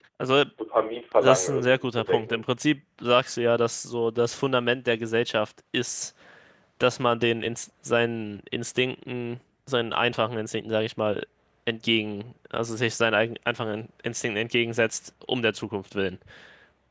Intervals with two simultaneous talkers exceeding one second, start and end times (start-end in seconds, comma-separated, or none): 1.2-2.4